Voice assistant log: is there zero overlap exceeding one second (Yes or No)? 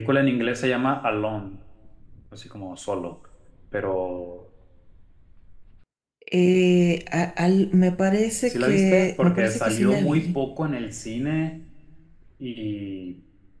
No